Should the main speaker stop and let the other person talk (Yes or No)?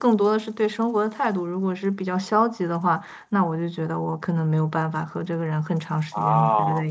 No